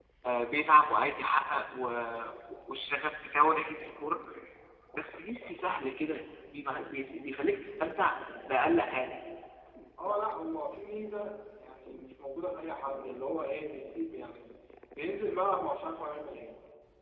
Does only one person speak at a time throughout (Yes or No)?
Yes